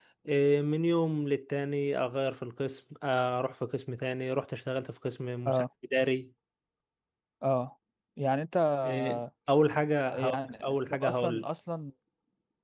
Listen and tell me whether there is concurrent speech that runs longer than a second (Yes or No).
Yes